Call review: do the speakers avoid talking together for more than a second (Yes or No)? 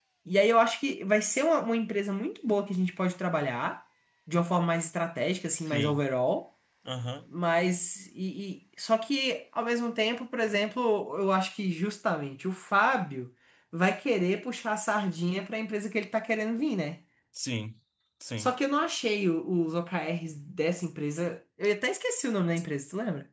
Yes